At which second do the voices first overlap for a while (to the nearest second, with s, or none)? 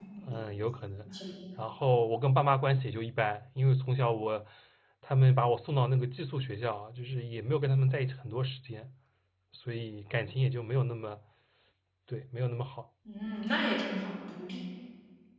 none